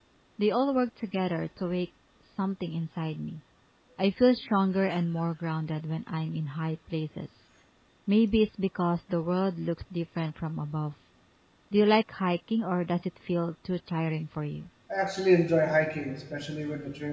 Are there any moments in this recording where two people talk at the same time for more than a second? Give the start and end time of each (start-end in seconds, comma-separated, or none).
none